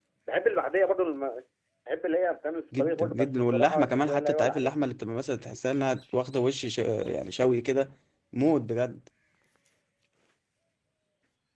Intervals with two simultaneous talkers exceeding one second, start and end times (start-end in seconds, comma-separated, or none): 2.8-4.7